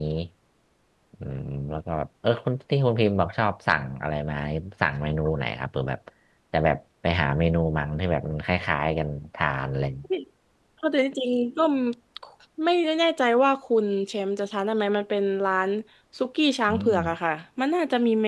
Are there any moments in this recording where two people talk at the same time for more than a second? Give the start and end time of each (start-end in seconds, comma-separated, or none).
none